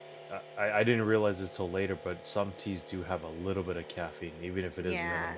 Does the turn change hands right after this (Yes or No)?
Yes